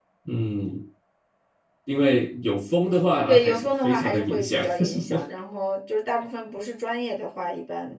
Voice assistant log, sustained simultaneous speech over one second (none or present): present